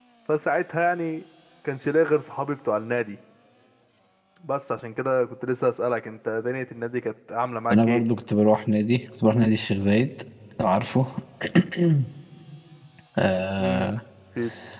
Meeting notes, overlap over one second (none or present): none